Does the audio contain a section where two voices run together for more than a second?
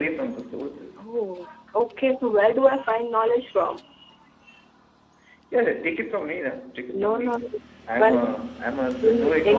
No

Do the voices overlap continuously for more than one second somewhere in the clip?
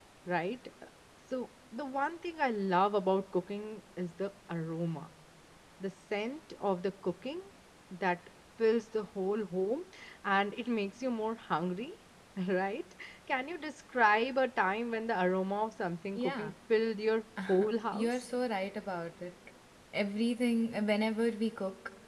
No

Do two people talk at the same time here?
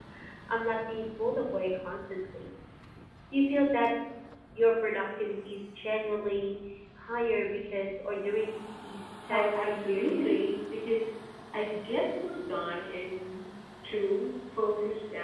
Yes, from 9.3 s

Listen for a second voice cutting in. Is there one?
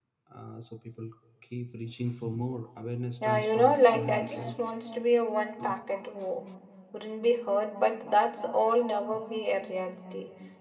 Yes, from 3.2 s

